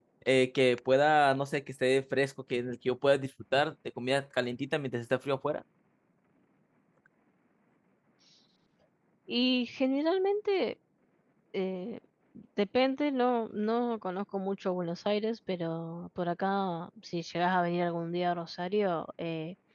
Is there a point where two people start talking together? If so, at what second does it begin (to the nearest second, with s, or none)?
none